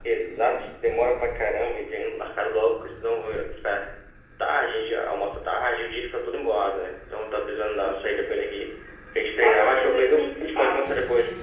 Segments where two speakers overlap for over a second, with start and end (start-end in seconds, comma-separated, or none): 9.4-10.9